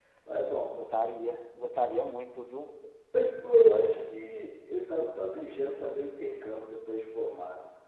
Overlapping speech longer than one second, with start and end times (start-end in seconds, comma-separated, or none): none